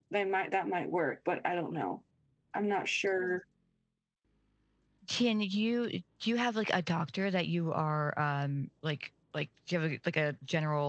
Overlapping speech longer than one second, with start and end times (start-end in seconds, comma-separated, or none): none